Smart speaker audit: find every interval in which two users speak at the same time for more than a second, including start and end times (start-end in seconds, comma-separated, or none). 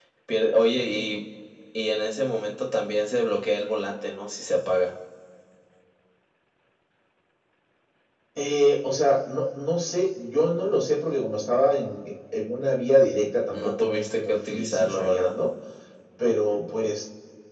13.5-15.4